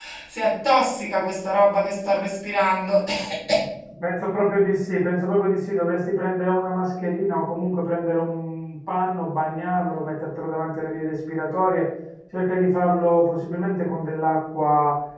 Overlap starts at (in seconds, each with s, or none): none